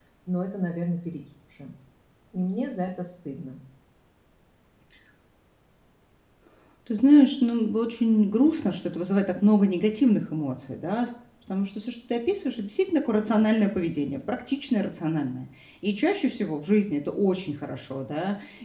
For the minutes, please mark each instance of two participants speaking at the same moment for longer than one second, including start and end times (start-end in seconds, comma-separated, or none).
none